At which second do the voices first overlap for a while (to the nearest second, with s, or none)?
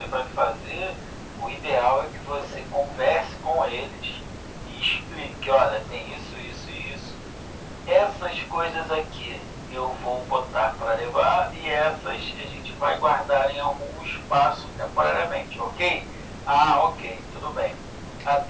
none